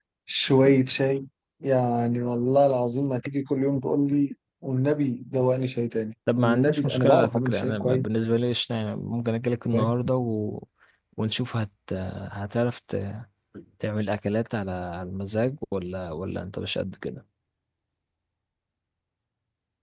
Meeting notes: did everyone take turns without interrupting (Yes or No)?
No